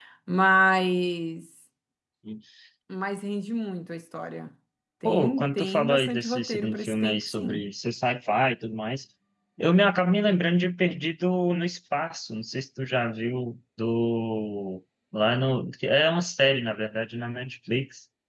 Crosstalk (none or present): present